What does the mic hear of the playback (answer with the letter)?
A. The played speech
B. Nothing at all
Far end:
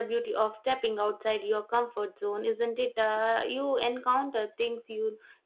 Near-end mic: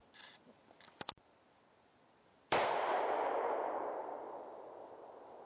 B